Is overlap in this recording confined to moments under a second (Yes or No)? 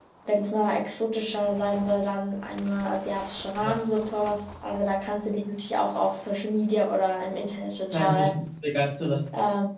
Yes